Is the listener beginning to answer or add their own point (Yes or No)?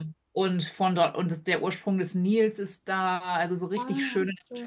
No